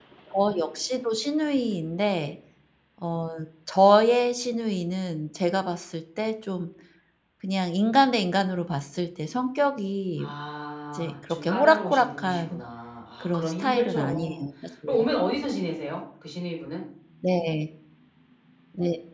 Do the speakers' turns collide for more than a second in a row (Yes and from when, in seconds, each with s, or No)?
Yes, from 10.9 s